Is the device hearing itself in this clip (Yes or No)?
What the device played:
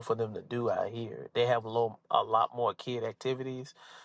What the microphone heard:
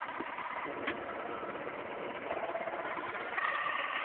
No